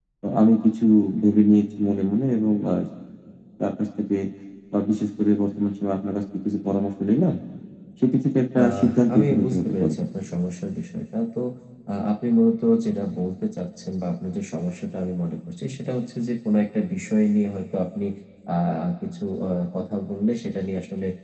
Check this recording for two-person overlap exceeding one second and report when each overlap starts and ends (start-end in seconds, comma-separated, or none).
8.6-10.0